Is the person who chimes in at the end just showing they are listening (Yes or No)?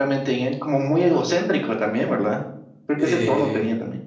No